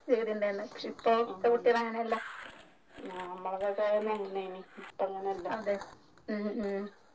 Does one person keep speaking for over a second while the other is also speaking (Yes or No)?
No